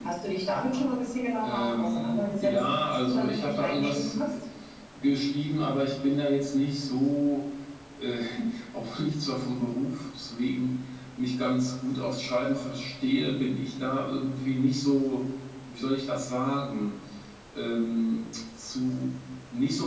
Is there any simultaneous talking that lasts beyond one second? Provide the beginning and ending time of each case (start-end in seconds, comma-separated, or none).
1.4-4.1